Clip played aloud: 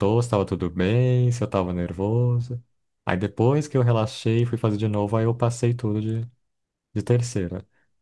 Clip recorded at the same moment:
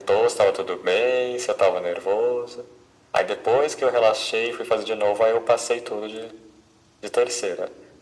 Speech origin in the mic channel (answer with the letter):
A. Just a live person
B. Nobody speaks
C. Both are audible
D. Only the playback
D